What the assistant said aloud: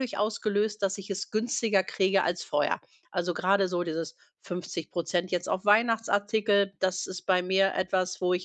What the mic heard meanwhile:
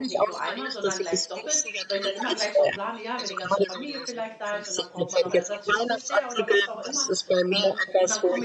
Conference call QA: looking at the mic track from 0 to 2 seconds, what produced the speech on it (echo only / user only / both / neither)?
both